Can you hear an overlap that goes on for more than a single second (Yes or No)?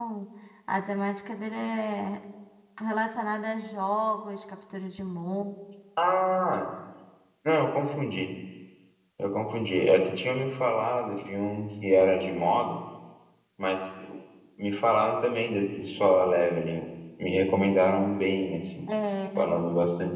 No